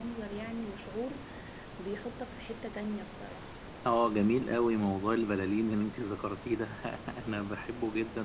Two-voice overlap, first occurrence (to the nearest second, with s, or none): none